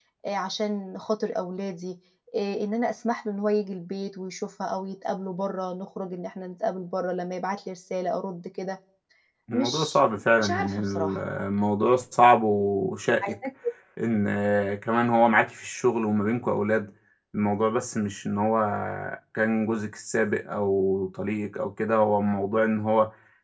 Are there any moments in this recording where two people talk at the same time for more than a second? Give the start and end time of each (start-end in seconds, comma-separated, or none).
9.5-11.2